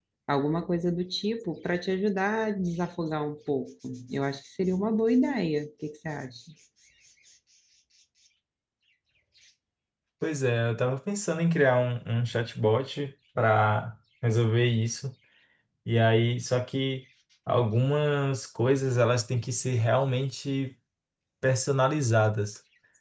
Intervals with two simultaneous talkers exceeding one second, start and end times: none

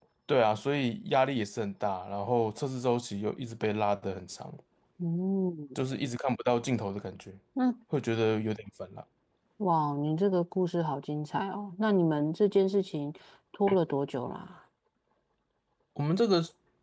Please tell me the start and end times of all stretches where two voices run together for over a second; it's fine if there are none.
none

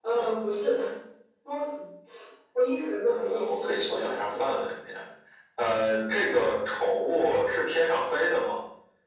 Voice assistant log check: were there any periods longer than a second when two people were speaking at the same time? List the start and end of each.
3.1-4.4

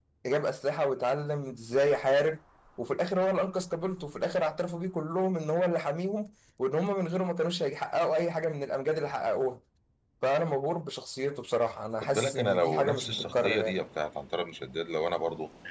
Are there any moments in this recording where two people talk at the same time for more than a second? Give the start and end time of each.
12.0-13.8

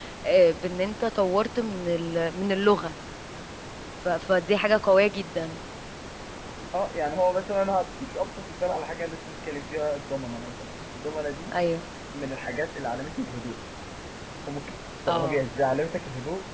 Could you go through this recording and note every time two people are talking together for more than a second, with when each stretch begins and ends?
none

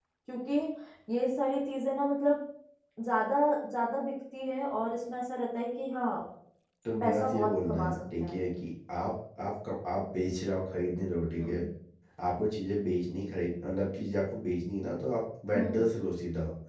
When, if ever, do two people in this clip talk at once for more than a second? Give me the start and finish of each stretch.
7.0-8.4

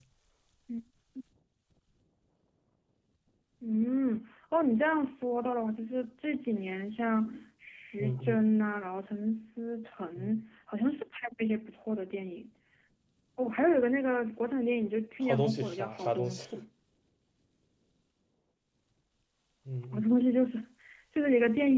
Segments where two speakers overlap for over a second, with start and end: 15.2-16.4

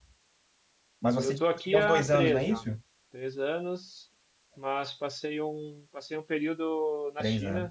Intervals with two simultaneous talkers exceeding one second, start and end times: 1.2-2.6

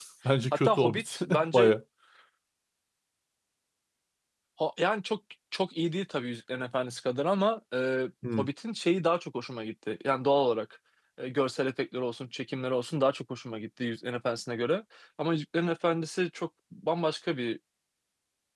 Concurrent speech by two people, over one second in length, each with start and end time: 0.5-1.7

